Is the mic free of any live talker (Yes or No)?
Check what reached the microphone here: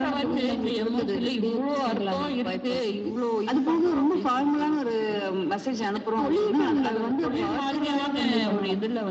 Yes